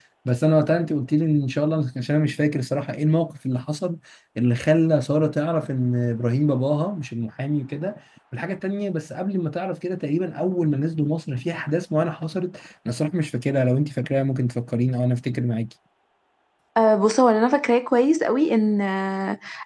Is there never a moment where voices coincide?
Yes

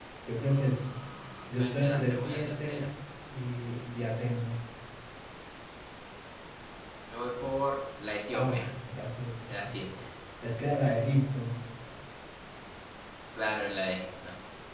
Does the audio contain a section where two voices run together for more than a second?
Yes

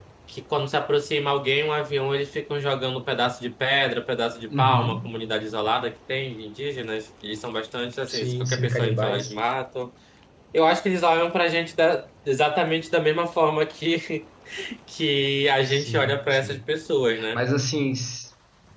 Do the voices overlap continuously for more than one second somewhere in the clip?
Yes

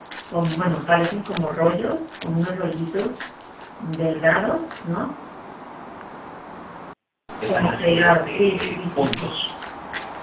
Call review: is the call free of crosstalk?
No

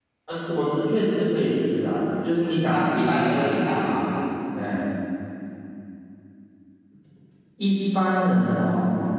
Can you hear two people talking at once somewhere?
Yes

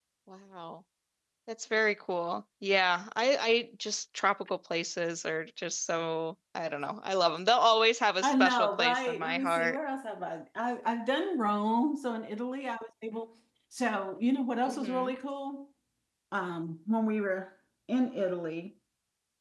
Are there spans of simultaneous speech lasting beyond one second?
Yes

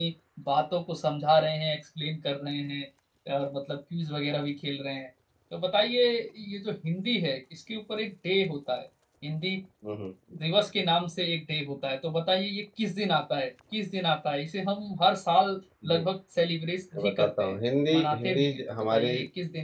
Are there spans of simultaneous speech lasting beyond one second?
Yes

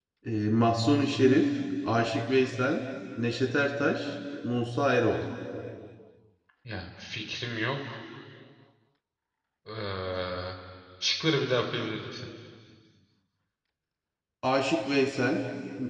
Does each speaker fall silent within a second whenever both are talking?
Yes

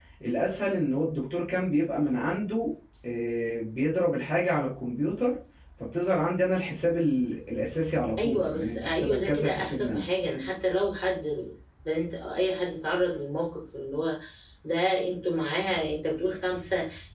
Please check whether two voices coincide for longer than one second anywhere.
Yes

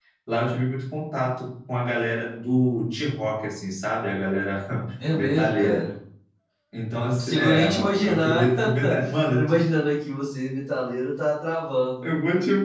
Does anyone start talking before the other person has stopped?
Yes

